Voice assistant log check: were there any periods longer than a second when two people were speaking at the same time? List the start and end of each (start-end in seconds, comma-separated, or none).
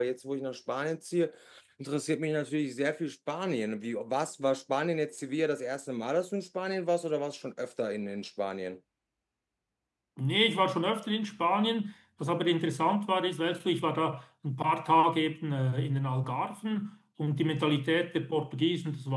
none